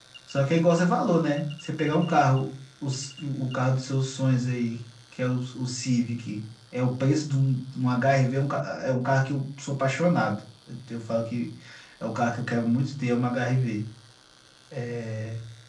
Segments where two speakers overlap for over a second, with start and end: none

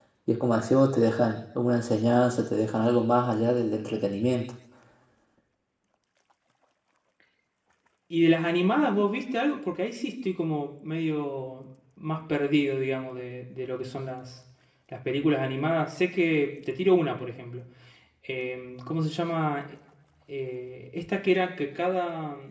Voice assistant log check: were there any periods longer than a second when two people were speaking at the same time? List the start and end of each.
none

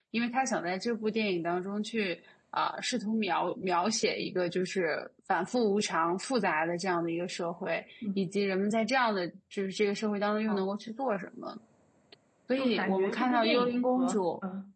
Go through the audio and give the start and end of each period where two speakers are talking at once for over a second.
12.6-14.2

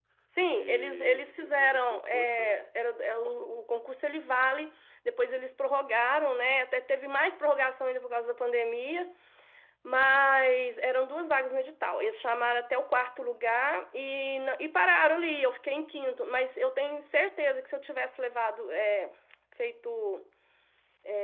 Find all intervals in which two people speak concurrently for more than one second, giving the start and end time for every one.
0.6-2.6

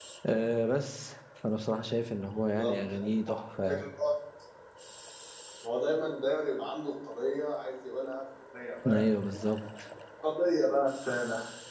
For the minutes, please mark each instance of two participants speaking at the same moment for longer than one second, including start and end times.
2.3-3.8

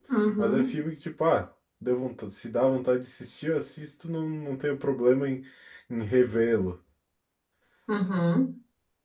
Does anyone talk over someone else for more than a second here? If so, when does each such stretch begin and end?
none

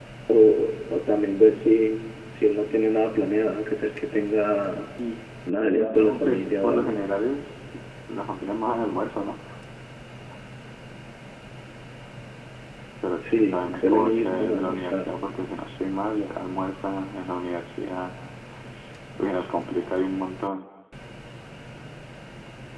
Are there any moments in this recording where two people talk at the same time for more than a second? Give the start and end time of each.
5.5-7.0, 13.2-15.1

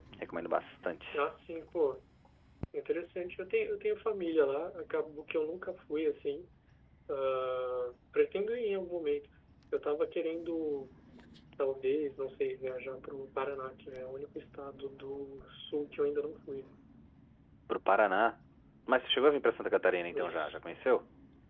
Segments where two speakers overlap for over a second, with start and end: none

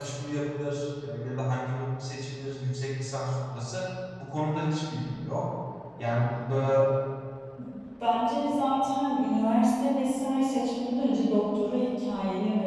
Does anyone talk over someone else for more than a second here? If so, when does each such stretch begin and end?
none

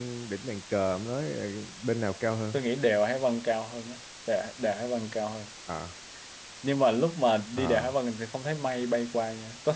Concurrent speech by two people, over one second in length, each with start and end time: none

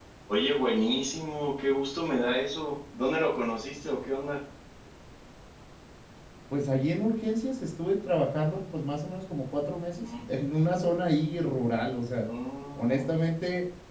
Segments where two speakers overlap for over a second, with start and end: none

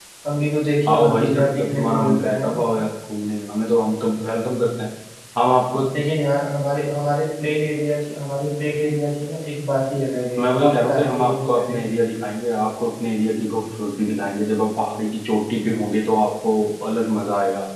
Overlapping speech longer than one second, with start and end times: 0.9-2.5, 10.4-11.8

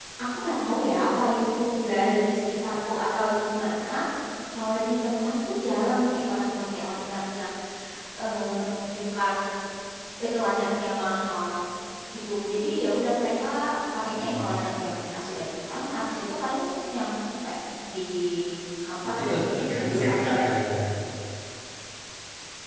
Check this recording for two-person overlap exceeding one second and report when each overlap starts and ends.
19.0-20.4

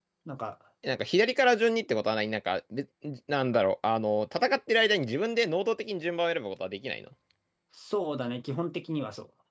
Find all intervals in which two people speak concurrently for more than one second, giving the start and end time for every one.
none

